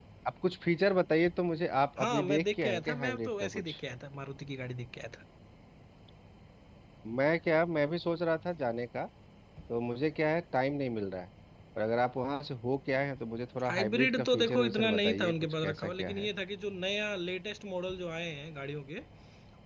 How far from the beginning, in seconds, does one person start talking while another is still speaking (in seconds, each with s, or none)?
2.0 s